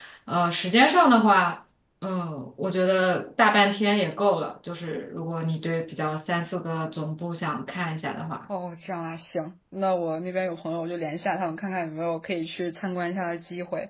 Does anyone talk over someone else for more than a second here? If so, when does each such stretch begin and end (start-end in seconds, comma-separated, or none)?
none